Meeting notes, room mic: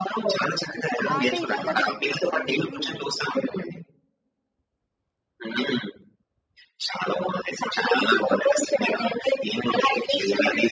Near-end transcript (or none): ఆహ్, అంటే ఇదంతా జరుగుతున్నప్పుడు హ్మ్.